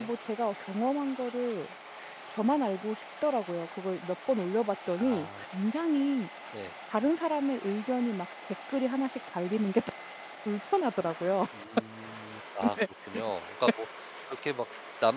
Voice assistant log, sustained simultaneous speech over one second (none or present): none